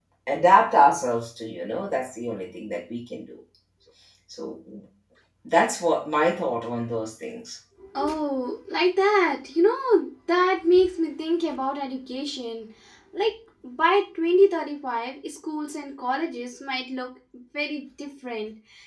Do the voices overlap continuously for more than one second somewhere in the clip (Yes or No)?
No